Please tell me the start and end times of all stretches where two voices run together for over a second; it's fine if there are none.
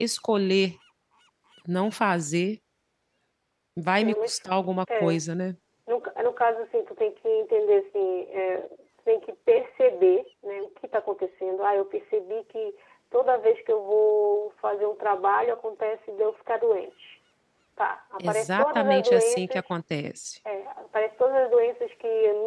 18.2-19.6

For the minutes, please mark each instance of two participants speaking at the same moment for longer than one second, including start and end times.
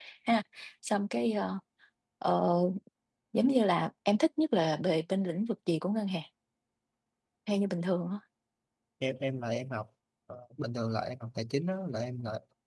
none

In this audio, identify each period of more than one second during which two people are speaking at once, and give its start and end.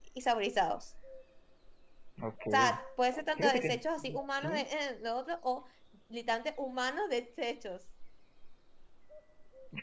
3.4-4.6

